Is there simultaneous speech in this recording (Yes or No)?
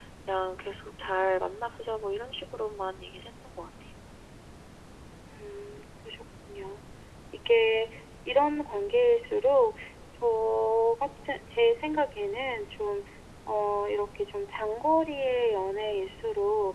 No